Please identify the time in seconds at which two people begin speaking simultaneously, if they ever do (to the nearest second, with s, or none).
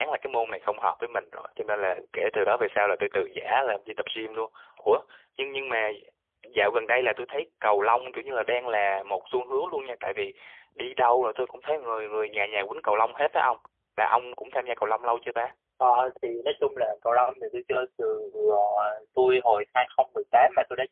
none